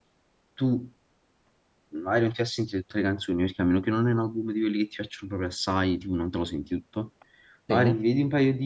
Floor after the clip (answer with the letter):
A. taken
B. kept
B